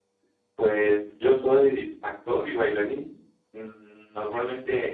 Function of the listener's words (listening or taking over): listening